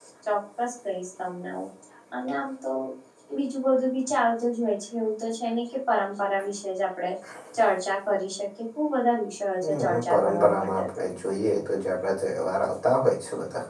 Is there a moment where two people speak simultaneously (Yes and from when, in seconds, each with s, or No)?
Yes, from 9.6 s